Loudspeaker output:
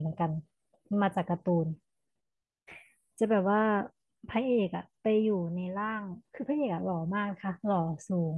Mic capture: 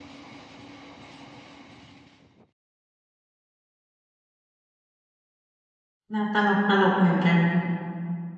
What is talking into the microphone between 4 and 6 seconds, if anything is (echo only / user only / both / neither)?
neither